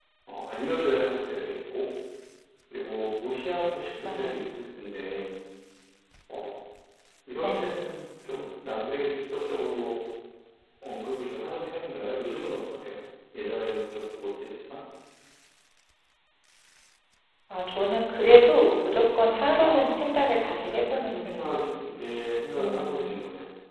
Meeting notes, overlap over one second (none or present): present